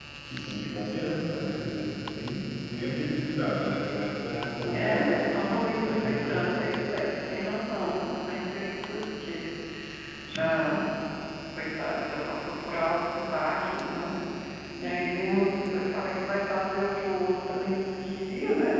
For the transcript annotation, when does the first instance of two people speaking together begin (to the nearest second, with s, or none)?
5 s